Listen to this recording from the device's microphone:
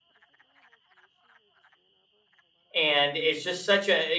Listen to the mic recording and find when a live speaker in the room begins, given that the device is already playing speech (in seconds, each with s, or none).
2.7 s